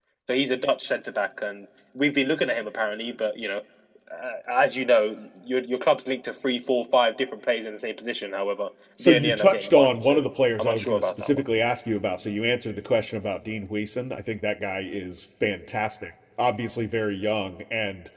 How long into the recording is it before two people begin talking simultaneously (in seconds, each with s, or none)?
9.0 s